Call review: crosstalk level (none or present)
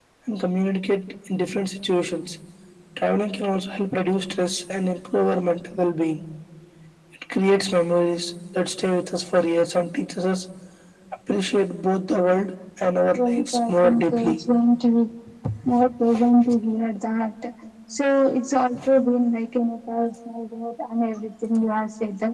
present